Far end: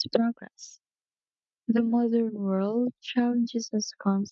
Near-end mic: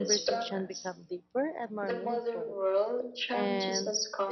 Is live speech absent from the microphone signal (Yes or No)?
No